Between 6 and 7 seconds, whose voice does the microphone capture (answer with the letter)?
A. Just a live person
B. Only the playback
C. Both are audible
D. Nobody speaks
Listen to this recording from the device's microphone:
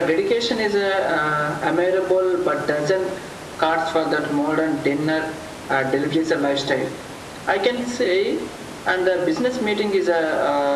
B